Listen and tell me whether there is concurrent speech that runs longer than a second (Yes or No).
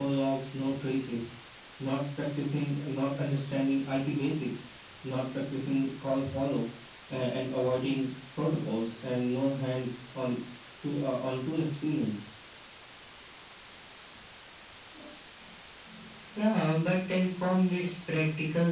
No